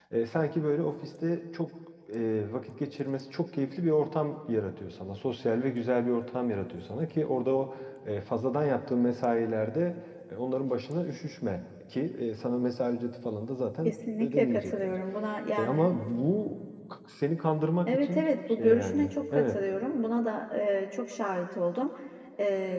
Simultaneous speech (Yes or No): Yes